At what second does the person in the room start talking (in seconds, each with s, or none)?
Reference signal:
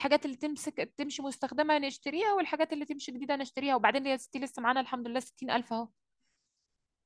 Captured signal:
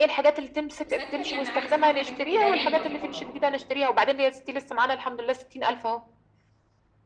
0.9 s